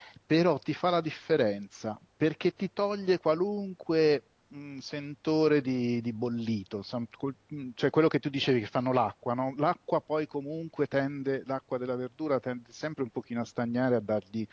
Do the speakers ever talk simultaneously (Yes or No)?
No